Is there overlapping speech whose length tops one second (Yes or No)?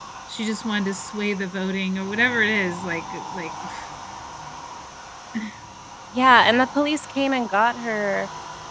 No